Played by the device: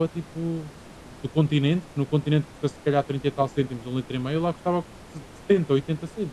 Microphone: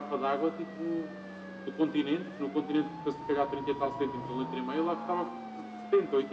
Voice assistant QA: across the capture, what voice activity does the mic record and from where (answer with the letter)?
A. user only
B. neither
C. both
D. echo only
D